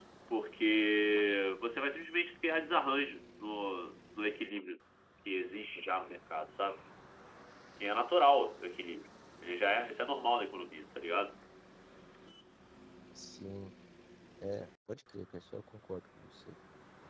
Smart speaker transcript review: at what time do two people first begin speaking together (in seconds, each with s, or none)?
none